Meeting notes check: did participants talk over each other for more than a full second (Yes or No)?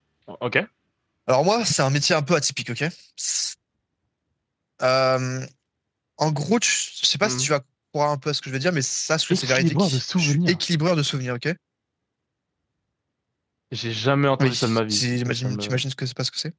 Yes